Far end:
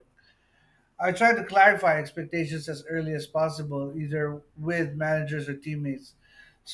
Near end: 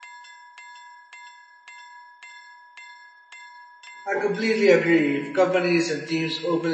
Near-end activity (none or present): present